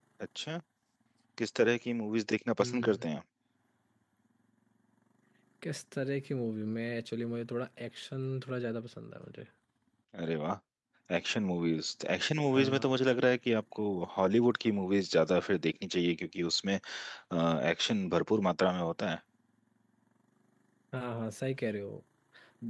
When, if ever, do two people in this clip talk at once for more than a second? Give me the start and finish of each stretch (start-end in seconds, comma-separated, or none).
none